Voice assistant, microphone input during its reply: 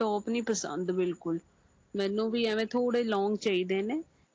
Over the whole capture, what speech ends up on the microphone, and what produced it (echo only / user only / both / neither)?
user only